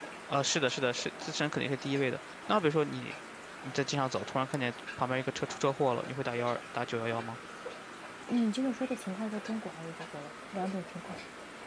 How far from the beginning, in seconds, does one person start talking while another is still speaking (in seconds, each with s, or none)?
none